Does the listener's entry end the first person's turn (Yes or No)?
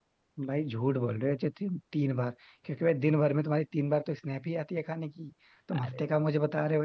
No